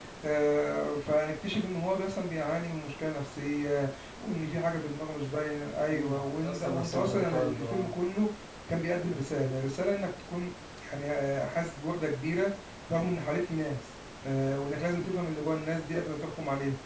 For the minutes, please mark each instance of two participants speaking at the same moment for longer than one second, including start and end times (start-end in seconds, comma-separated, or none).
5.9-8.0